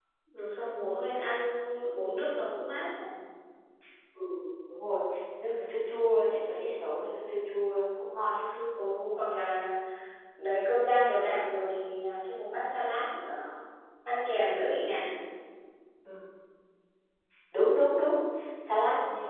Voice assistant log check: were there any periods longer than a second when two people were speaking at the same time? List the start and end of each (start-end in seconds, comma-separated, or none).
none